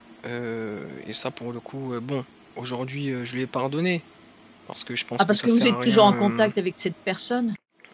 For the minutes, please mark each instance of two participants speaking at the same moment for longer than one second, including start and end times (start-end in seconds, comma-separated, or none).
5.2-6.5